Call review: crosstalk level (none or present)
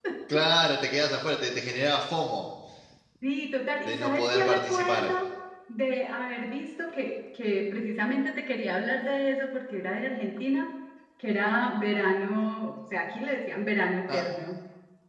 present